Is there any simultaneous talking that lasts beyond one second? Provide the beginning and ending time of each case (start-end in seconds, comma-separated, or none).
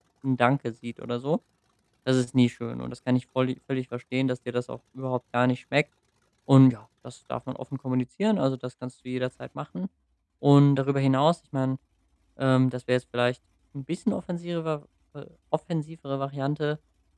none